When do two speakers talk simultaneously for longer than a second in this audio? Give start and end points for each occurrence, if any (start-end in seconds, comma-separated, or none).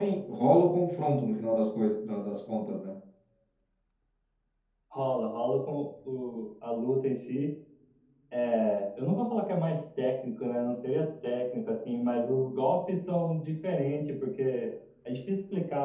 none